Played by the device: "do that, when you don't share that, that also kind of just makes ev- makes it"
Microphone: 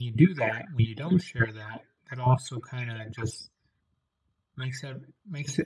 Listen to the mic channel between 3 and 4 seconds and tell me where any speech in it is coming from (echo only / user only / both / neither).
echo only